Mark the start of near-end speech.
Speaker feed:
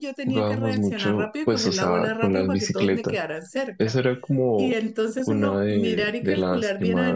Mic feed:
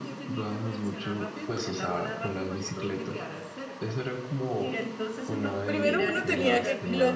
5.6 s

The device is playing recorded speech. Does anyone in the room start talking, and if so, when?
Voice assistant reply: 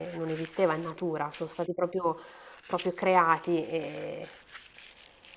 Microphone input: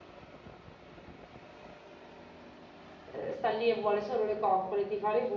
3.0 s

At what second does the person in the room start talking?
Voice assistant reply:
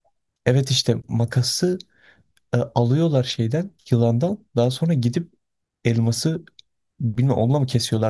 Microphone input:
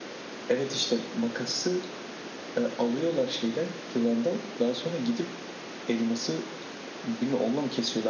none

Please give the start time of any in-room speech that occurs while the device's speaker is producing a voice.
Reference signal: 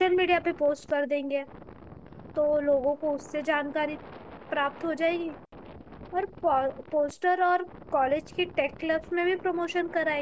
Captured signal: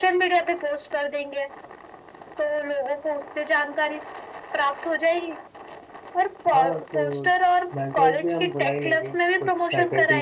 6.5 s

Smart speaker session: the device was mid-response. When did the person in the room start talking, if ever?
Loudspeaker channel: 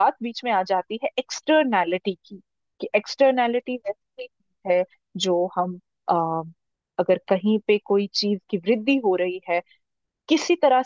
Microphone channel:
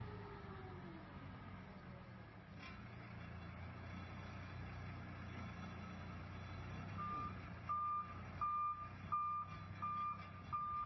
none

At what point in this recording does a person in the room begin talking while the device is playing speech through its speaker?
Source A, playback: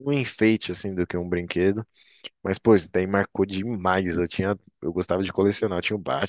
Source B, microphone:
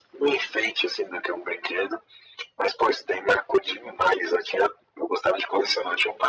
none

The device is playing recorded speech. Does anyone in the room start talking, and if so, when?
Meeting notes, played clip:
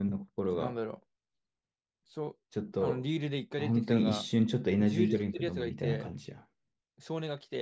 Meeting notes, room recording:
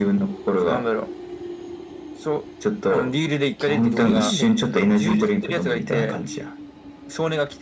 3.6 s

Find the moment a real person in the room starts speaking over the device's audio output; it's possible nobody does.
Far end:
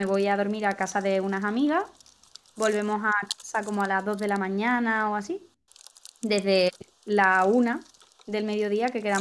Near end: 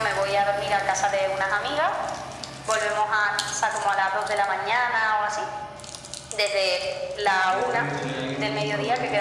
7.4 s

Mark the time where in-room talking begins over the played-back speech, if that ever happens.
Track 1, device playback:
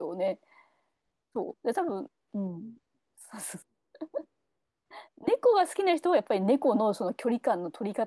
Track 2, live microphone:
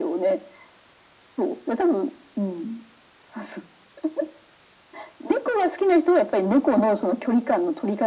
none

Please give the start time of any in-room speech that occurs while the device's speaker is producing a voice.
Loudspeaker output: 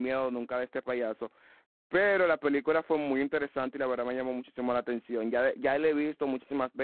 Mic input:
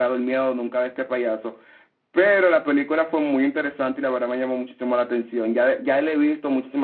none

